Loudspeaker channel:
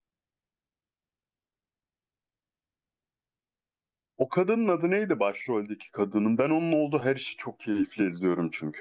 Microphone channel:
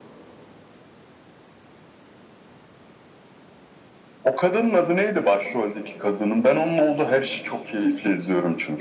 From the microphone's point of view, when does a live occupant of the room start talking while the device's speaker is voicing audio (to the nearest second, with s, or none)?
none